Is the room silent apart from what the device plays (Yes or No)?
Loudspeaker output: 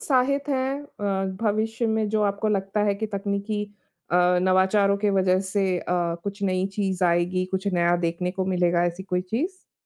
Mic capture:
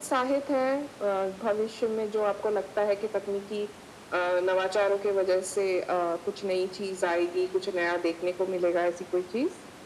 Yes